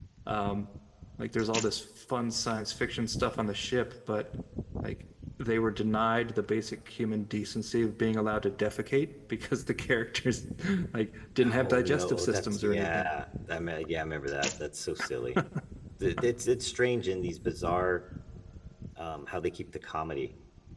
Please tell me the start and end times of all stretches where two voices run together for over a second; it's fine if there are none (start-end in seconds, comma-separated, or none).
11.6-13.1